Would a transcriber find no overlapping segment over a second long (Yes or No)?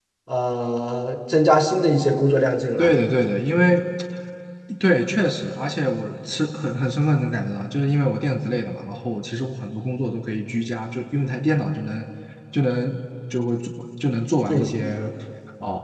Yes